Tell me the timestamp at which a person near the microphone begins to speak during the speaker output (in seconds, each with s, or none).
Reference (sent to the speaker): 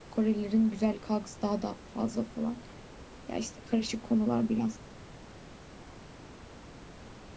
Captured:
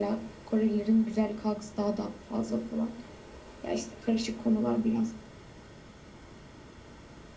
none